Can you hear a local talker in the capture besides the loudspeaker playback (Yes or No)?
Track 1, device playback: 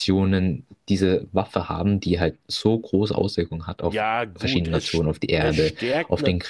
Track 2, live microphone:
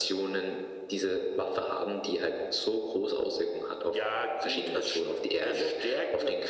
No